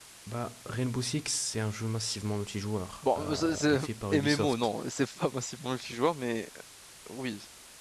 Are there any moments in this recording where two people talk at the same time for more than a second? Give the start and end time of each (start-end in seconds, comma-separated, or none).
3.0-4.7